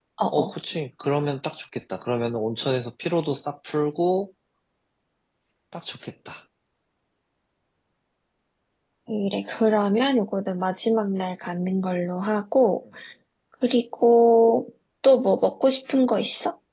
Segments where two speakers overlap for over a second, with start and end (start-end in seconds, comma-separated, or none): none